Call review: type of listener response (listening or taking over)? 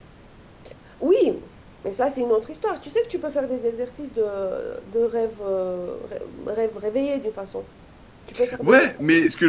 taking over